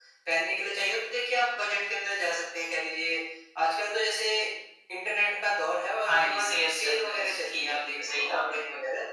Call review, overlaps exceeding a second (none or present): present